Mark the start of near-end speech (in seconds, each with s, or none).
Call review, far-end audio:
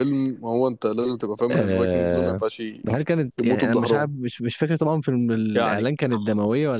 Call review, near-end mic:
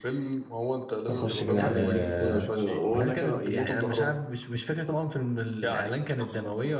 1.1 s